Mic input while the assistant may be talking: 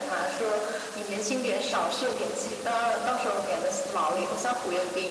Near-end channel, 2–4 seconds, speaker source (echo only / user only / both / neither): echo only